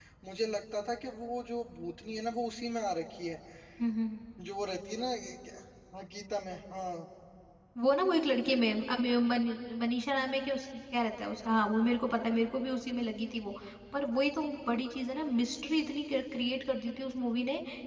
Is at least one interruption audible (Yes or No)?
No